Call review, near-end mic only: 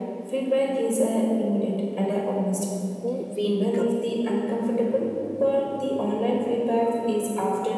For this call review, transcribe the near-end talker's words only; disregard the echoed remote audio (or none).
who we become